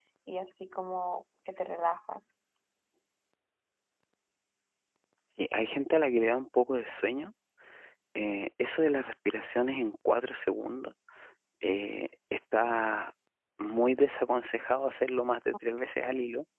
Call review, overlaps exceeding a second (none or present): none